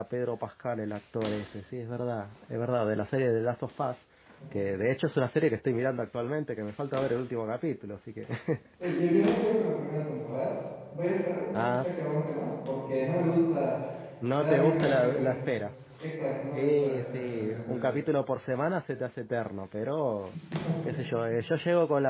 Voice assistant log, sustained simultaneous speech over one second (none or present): present